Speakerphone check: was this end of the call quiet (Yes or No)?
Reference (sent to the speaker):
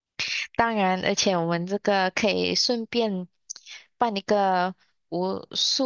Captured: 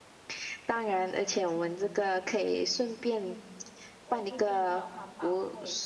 No